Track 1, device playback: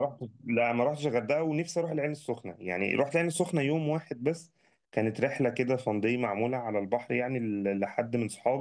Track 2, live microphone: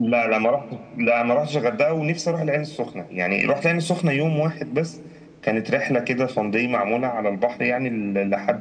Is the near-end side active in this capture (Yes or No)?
No